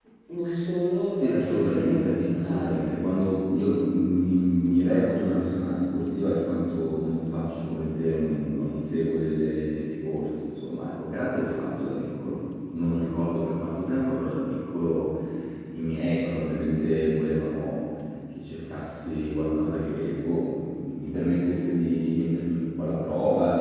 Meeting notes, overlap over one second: present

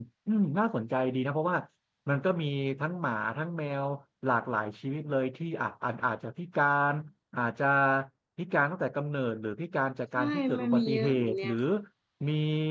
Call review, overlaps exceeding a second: present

